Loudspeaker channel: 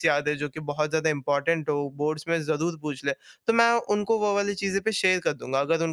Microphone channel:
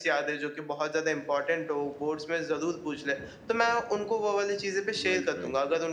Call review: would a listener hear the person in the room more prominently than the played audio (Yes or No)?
No